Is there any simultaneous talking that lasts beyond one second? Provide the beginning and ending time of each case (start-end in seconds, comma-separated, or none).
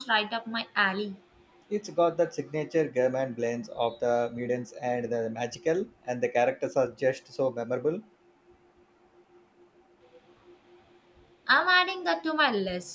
none